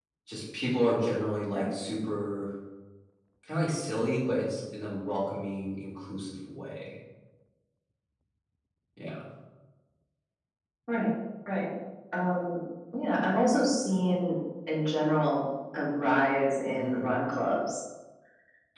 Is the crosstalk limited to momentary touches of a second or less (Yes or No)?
Yes